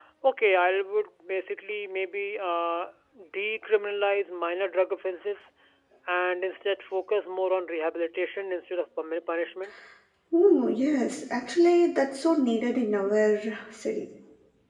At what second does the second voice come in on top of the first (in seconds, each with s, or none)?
none